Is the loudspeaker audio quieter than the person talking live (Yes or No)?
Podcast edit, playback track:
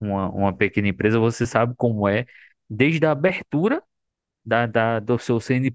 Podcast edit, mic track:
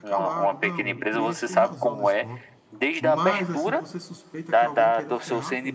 No